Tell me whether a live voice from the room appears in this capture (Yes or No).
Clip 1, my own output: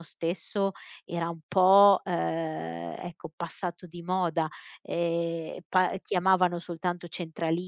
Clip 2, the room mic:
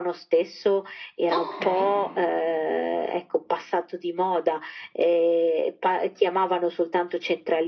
Yes